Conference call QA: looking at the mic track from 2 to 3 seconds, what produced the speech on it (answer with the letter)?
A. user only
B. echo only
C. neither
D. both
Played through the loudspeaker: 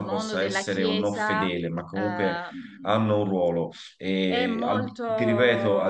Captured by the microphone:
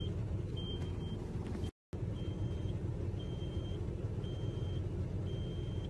C